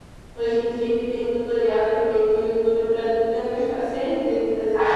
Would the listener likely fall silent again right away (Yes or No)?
No